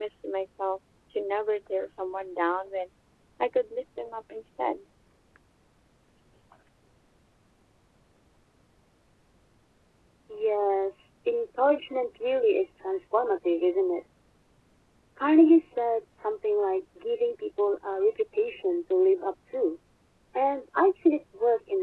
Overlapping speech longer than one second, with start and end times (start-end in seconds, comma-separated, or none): none